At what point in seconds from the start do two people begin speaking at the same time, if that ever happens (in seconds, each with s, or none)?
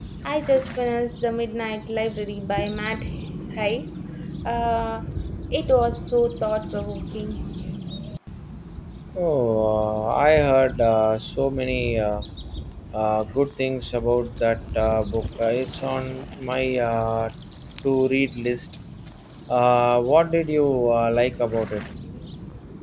none